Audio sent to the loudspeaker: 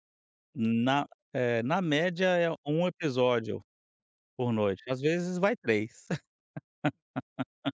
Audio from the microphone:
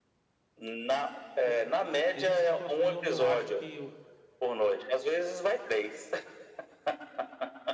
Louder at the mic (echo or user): echo